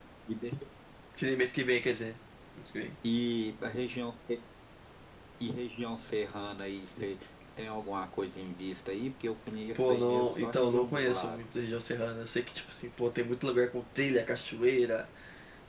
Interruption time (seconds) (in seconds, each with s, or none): 9.8 s